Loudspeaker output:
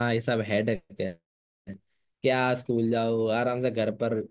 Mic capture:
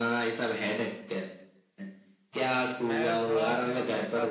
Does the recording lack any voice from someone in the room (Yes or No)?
No